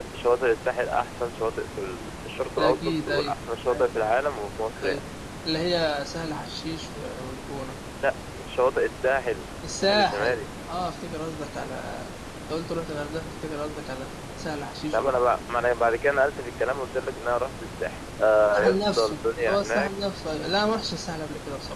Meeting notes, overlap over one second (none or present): present